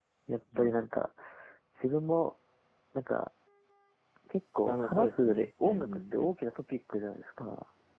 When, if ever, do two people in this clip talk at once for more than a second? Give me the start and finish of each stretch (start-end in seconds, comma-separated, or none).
4.7-6.3